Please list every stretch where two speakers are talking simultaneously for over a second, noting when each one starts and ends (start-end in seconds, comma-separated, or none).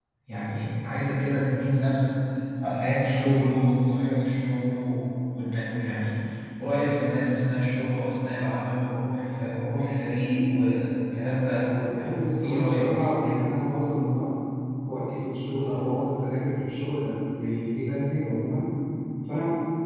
11.8-13.1